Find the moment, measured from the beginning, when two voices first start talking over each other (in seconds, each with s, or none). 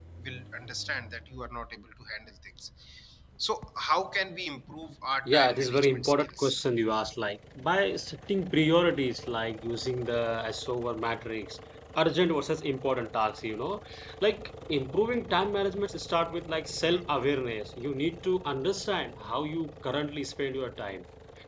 5.2 s